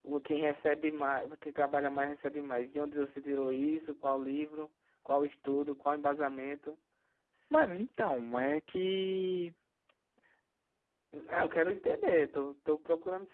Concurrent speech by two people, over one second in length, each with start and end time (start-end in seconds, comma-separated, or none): none